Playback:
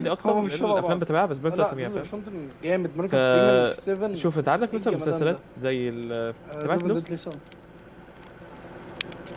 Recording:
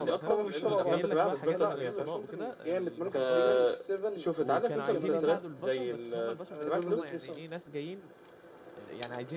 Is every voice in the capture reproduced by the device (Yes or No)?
No